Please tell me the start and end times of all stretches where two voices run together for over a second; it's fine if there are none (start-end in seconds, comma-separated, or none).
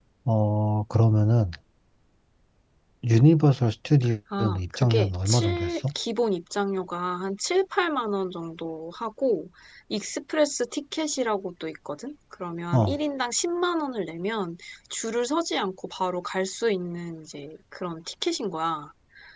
4.4-5.8